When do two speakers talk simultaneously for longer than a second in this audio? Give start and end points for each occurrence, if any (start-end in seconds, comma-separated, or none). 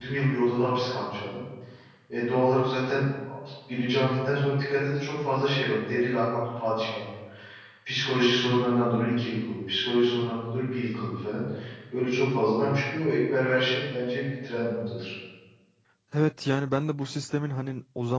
none